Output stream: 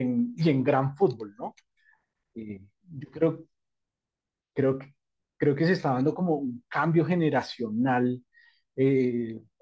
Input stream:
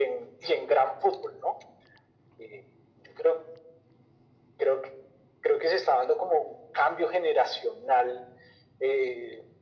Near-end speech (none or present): none